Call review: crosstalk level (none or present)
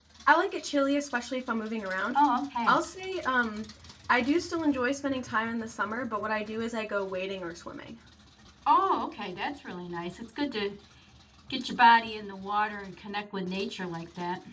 none